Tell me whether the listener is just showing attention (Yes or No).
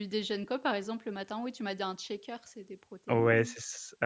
No